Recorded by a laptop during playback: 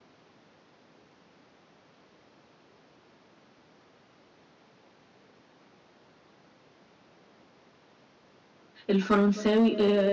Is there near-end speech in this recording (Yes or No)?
Yes